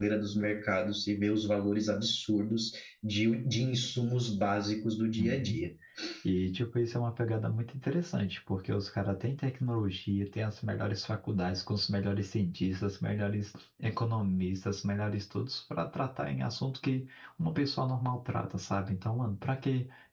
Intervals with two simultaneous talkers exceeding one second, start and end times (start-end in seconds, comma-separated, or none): none